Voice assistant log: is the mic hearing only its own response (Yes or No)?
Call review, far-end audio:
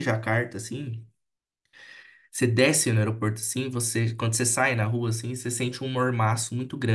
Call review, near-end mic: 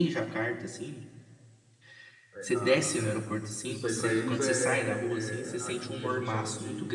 No